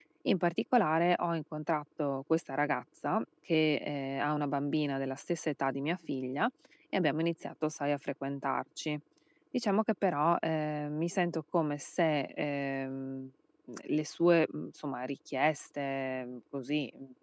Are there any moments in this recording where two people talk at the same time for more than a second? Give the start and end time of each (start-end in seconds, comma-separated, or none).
none